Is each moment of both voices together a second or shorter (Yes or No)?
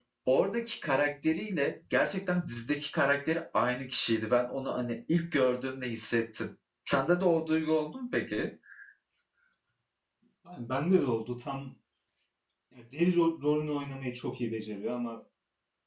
Yes